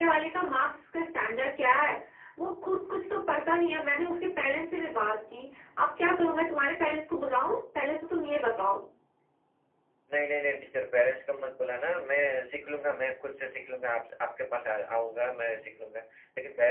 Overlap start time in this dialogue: none

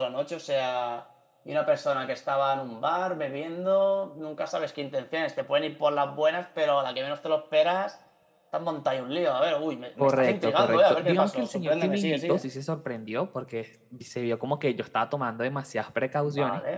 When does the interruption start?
10.0 s

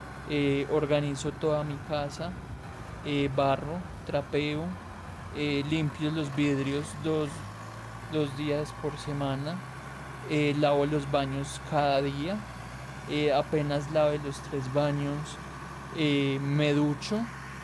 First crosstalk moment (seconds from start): none

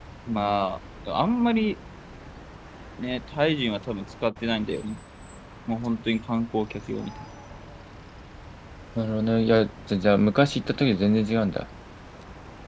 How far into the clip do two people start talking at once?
none

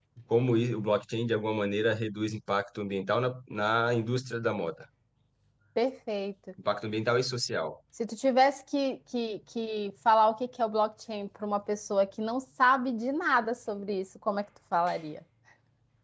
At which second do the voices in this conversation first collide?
none

